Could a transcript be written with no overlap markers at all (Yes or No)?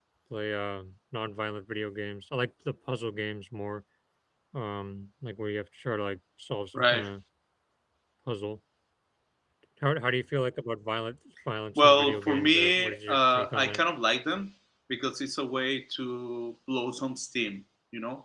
No